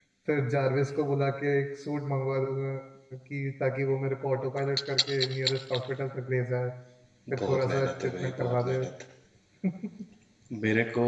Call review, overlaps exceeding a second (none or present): present